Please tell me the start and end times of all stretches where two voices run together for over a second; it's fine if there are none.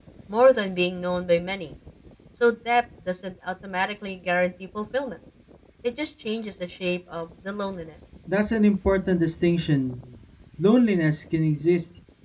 none

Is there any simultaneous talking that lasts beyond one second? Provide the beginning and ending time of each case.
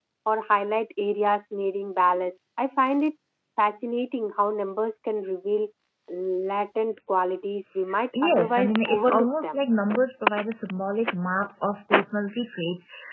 8.1-9.6

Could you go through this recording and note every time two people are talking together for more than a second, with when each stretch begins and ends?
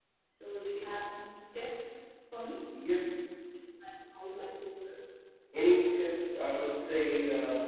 none

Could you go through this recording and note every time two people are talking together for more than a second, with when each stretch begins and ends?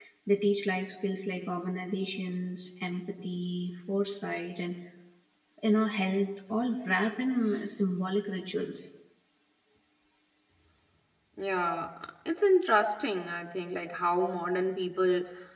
none

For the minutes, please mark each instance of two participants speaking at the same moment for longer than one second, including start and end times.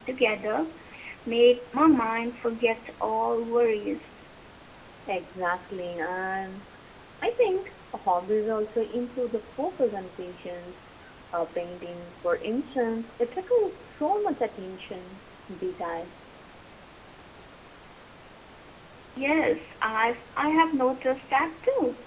none

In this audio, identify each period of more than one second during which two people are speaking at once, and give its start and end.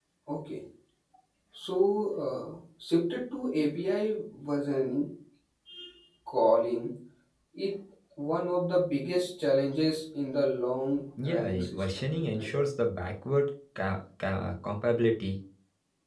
11.2-12.5

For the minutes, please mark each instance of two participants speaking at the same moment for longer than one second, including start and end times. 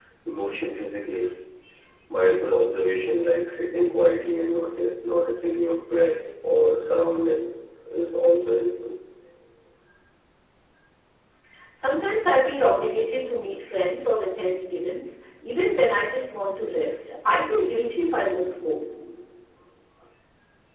none

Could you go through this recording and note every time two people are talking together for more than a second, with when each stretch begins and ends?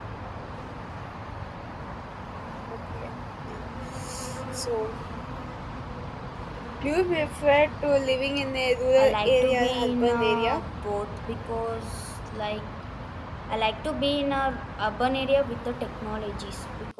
9.0-10.6

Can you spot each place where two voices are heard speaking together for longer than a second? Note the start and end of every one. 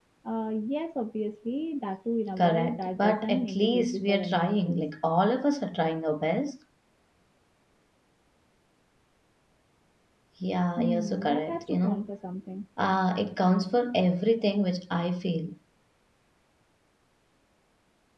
2.4-4.8, 10.8-12.0

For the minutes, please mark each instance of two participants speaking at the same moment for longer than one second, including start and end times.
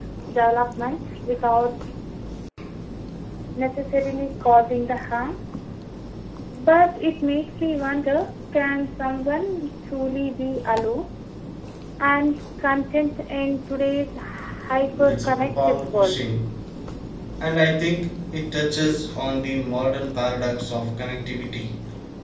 14.8-16.2

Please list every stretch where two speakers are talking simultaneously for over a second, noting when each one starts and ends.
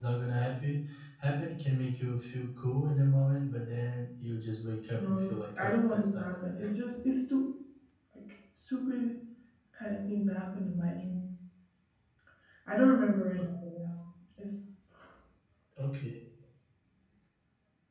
4.9-6.7

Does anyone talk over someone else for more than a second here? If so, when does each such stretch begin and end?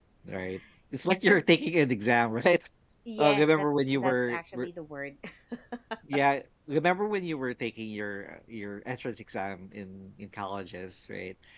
3.2-4.7

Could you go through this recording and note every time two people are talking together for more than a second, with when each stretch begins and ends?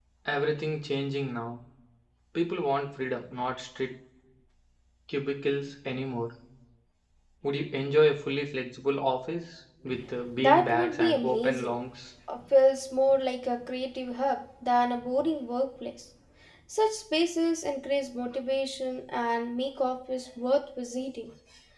10.4-11.7

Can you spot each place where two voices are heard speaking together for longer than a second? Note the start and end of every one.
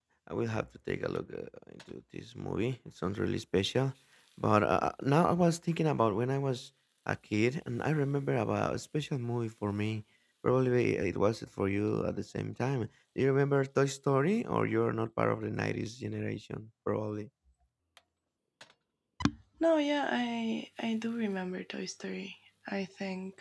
none

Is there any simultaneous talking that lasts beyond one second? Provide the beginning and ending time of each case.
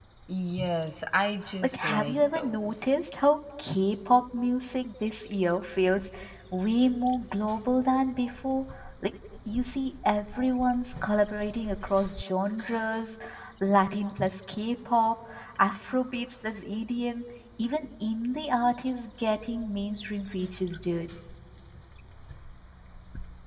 1.6-2.9

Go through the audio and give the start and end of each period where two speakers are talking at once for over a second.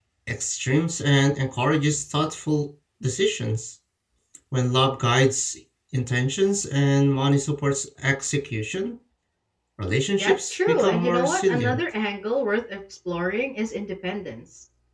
10.2-11.8

